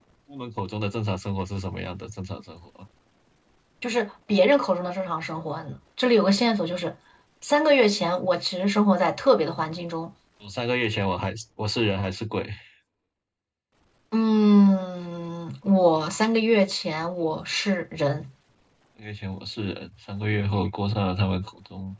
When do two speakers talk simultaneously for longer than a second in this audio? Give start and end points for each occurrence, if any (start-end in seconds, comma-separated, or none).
none